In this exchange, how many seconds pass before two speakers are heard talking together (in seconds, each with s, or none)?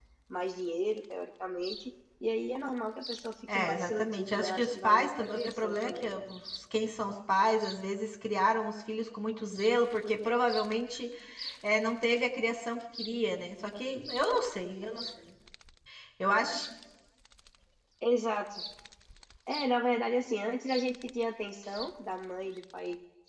3.5 s